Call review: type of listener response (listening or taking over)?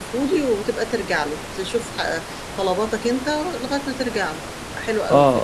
taking over